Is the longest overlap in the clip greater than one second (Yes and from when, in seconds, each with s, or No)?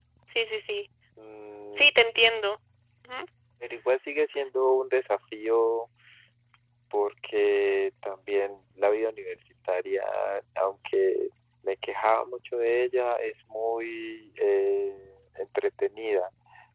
No